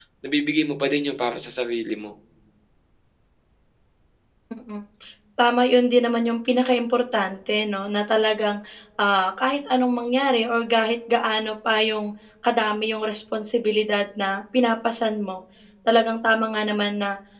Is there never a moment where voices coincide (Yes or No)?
Yes